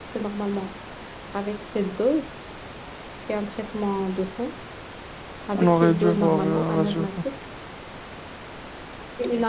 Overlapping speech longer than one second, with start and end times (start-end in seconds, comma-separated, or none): 5.5-7.1